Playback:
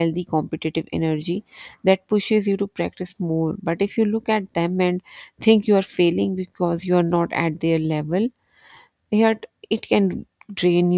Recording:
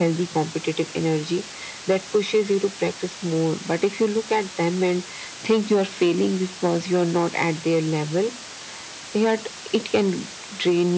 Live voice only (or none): none